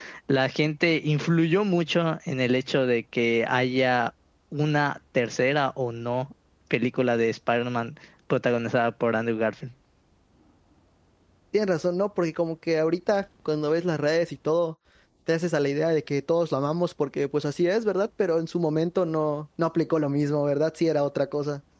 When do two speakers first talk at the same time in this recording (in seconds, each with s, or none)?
none